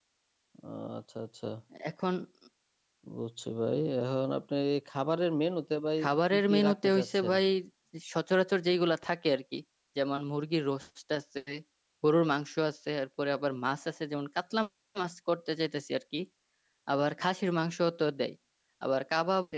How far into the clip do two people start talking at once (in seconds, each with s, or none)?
6.0 s